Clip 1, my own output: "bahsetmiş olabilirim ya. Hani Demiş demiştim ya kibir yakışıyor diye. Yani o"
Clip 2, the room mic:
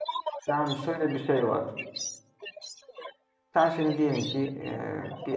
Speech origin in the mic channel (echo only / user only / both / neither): both